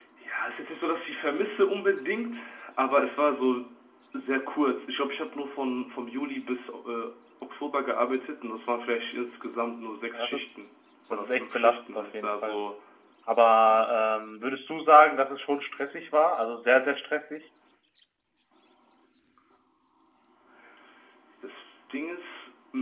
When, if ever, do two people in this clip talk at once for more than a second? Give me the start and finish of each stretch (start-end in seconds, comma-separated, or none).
11.1-12.6